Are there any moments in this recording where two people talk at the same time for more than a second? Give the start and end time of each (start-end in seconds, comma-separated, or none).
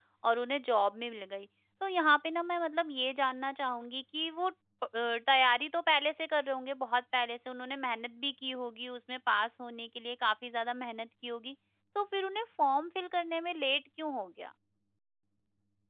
none